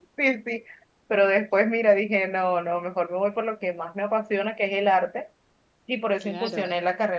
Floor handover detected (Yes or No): No